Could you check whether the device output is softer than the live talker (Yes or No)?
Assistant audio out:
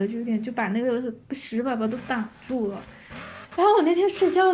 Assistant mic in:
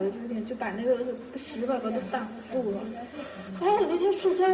No